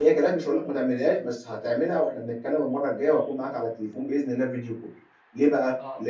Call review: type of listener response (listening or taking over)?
listening